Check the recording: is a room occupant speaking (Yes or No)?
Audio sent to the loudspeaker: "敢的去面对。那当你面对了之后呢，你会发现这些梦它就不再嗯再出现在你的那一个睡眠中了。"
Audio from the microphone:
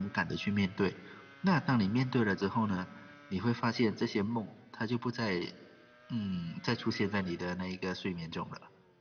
No